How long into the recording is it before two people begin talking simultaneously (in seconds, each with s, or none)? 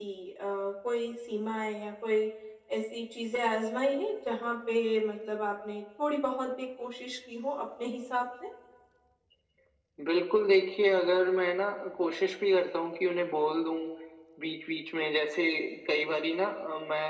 none